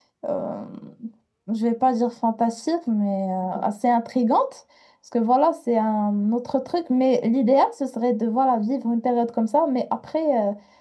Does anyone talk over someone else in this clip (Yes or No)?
No